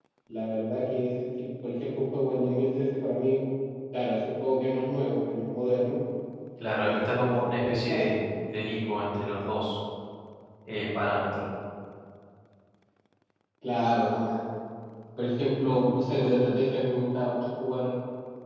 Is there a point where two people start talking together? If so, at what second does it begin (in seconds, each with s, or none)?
6.8 s